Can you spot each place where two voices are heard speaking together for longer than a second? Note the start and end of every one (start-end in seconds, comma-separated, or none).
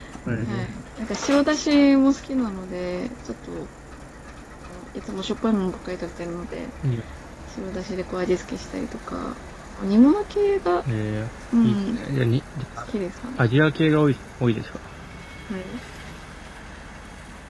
none